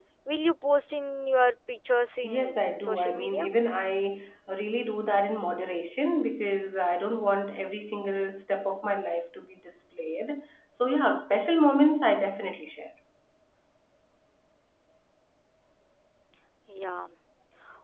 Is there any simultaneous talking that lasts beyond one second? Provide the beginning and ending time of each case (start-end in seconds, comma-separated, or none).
2.2-3.5